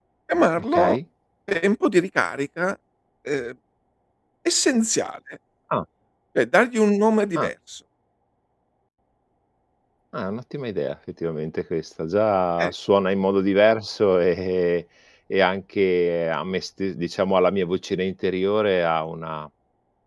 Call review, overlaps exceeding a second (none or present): none